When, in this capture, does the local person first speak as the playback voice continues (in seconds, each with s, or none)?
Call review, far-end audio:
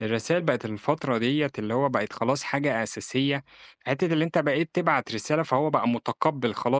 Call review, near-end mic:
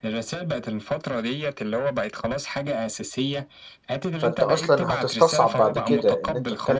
4.2 s